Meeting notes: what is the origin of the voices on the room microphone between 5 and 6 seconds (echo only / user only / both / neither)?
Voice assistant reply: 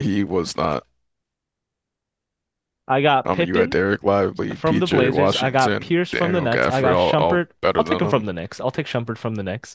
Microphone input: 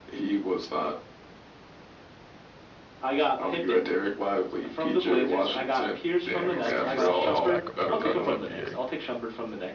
echo only